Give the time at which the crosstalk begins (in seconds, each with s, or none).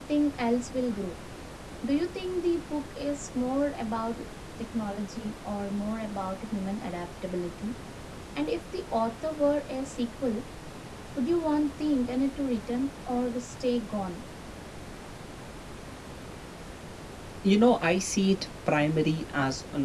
none